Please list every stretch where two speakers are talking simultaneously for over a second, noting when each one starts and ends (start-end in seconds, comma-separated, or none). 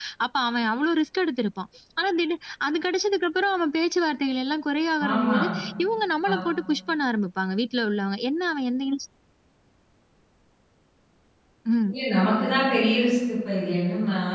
none